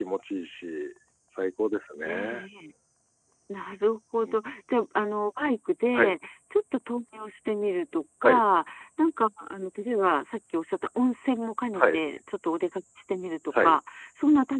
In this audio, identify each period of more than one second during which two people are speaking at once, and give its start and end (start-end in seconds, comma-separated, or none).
none